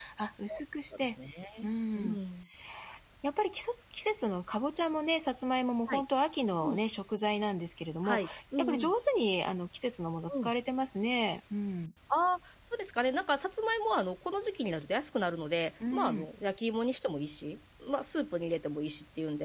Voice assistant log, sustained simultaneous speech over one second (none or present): none